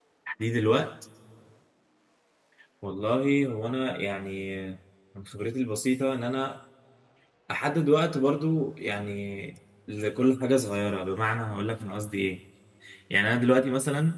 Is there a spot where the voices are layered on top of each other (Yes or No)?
No